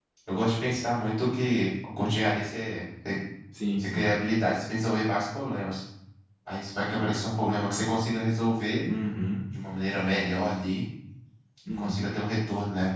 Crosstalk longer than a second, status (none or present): none